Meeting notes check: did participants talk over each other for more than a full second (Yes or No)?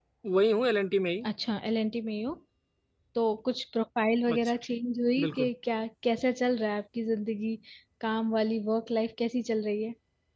No